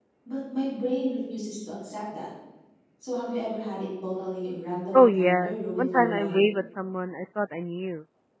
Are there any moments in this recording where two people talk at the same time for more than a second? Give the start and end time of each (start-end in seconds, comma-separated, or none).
4.9-6.4